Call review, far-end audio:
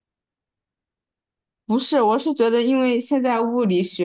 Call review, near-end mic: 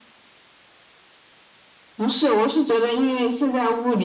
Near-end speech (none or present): none